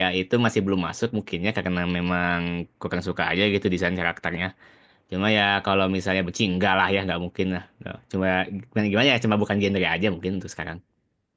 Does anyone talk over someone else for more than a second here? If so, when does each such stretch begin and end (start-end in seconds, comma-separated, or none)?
none